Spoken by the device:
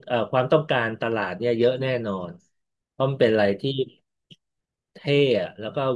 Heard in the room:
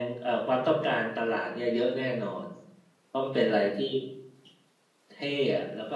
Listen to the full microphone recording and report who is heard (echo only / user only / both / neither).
echo only